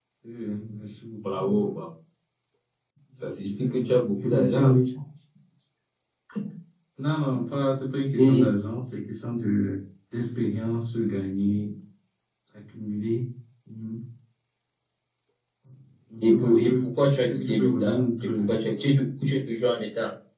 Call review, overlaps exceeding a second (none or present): present